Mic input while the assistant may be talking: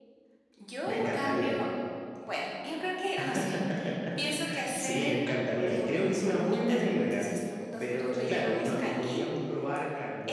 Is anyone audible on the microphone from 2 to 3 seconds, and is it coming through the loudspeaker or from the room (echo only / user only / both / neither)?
echo only